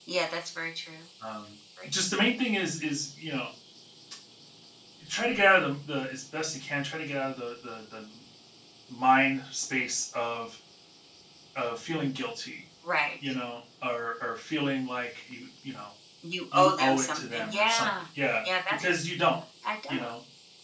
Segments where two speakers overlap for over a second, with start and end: 16.5-17.9

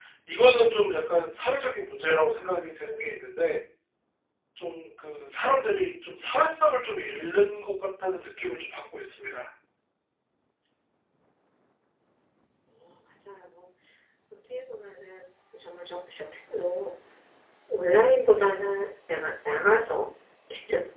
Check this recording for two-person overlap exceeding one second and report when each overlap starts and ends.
none

